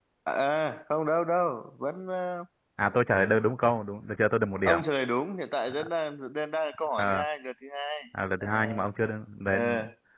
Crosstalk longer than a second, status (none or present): none